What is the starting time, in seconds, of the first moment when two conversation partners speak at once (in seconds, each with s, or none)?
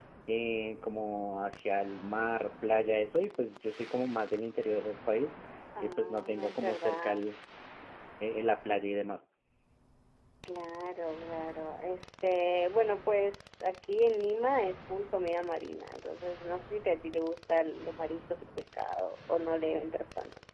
5.8 s